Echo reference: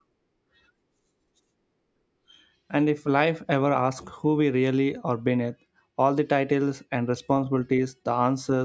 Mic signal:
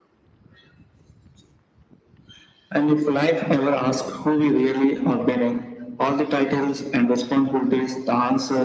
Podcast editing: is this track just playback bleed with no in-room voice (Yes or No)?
Yes